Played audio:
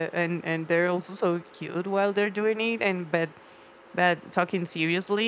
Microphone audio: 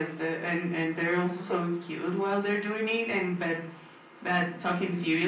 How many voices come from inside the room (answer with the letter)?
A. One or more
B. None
B